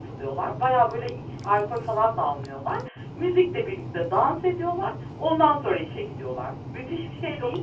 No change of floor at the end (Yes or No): No